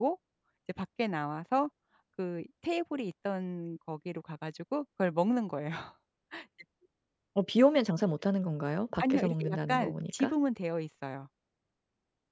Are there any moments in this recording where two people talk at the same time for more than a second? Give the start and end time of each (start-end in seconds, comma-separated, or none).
9.0-10.3